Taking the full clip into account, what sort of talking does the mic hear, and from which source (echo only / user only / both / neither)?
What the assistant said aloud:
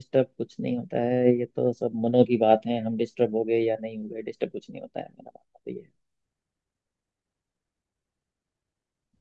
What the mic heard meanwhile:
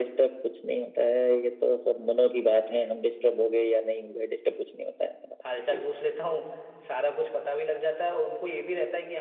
both